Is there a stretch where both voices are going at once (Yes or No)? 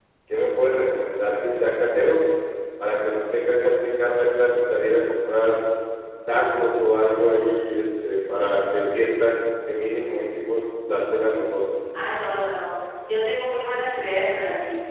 No